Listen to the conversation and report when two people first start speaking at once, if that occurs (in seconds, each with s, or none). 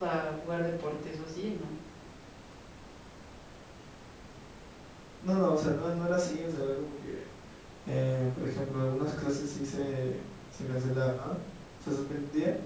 none